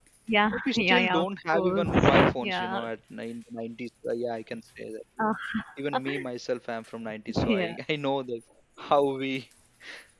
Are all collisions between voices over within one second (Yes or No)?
No